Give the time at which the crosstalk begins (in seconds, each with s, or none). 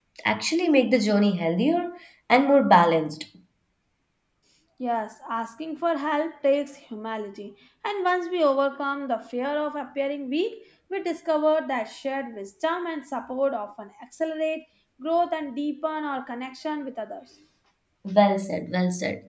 none